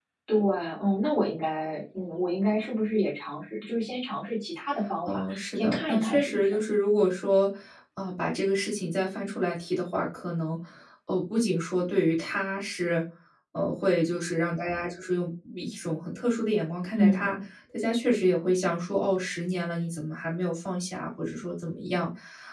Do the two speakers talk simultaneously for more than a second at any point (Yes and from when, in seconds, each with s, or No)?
Yes, from 5.1 s